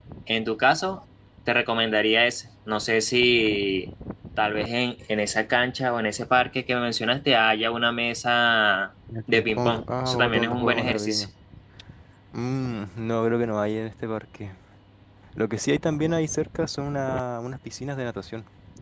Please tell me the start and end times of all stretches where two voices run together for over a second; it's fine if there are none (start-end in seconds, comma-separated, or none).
9.3-11.2